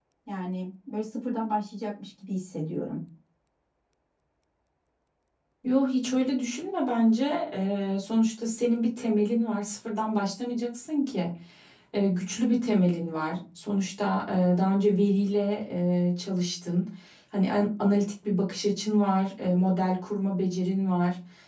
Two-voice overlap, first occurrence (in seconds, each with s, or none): none